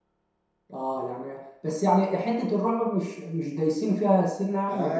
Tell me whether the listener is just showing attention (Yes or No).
No